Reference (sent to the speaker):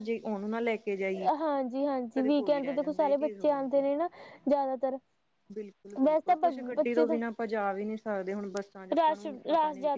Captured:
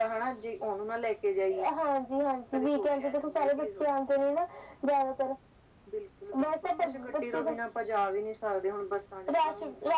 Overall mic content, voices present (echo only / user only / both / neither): echo only